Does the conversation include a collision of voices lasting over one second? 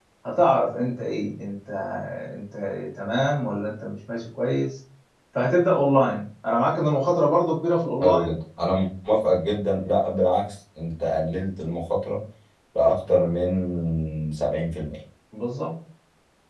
No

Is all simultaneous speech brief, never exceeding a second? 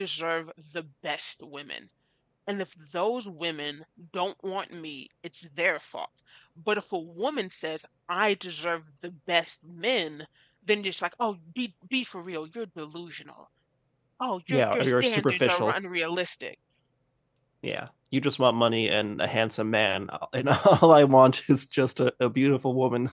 No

